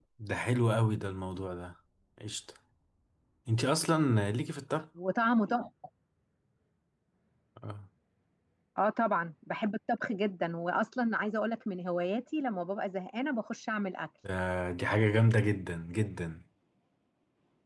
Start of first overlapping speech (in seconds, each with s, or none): none